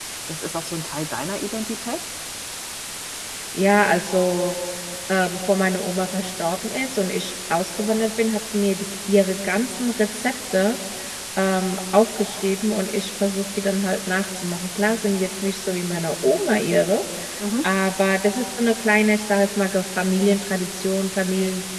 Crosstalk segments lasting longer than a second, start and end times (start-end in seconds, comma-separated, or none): none